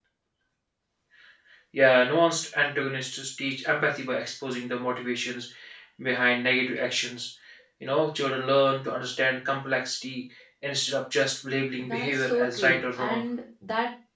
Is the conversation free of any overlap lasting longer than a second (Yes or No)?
No